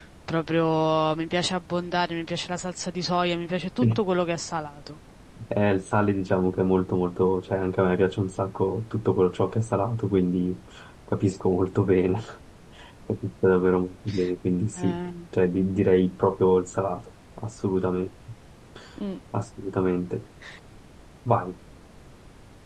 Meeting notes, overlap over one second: none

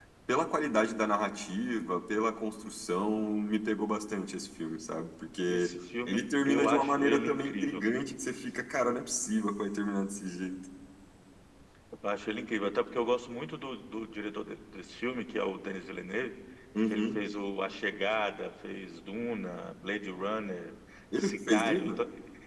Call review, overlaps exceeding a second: present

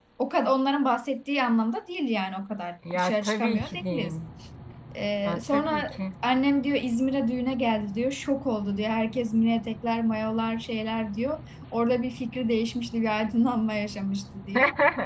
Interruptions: present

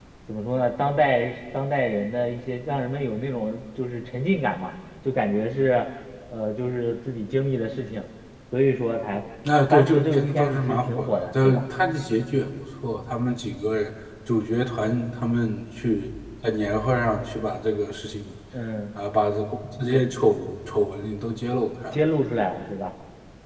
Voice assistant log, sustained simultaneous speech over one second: present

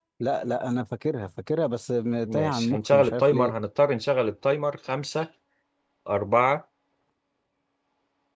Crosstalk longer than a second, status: present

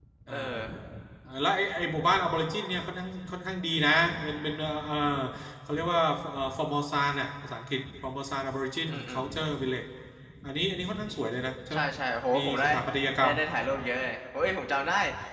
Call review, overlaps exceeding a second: none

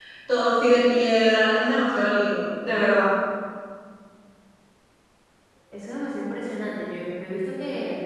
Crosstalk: none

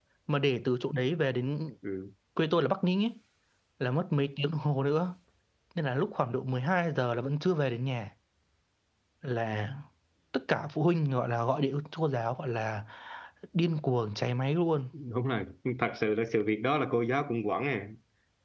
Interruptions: none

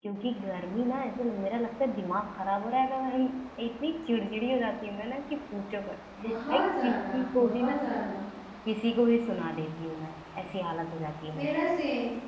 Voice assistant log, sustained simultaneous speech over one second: present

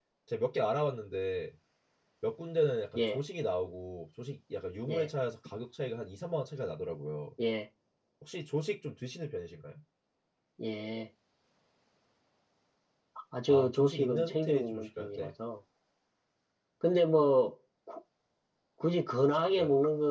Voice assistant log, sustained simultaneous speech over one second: present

